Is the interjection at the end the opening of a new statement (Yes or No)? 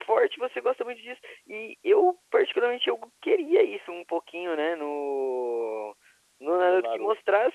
No